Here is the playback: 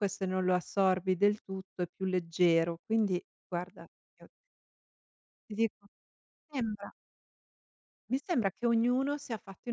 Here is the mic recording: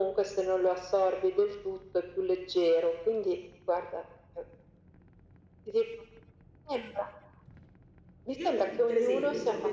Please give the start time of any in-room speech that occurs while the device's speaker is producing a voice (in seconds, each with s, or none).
8.3 s